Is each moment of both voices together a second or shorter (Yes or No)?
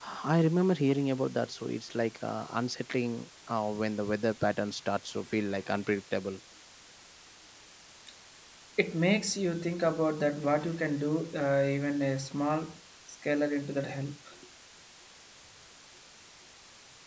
Yes